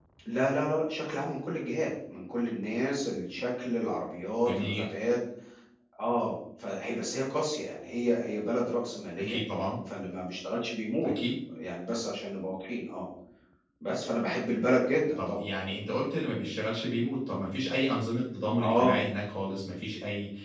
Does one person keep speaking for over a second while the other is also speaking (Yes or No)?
No